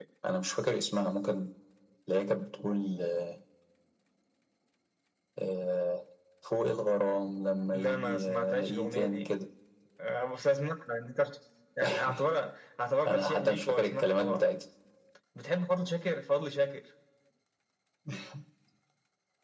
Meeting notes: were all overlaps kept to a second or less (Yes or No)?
No